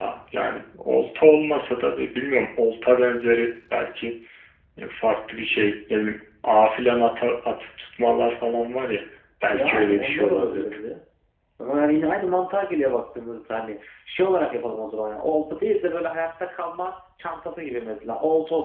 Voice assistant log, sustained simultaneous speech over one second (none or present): present